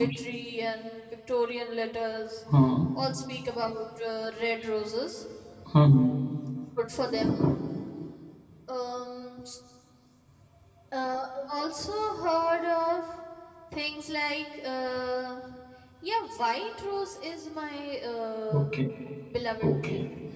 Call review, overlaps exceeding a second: none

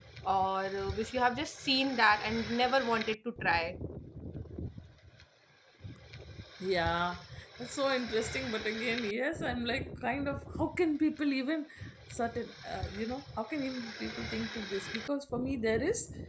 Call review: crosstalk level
none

